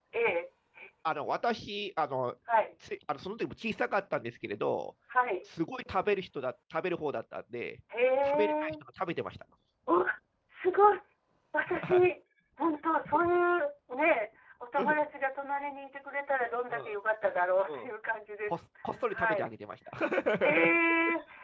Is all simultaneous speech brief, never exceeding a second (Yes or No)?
Yes